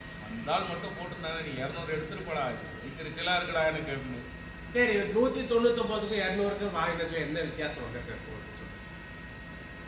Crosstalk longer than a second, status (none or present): none